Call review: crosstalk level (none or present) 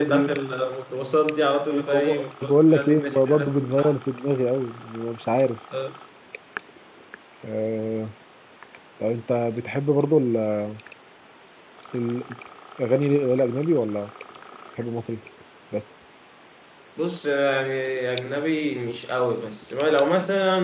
present